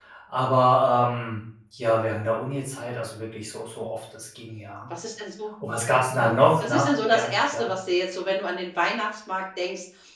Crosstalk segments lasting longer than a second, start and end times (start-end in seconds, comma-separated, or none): 6.1-7.7